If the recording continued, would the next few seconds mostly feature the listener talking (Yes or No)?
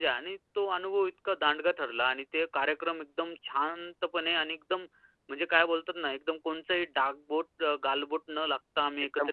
Yes